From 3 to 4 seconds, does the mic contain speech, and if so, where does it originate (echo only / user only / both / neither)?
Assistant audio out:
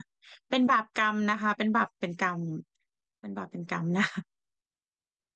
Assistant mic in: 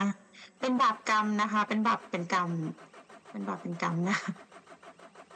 echo only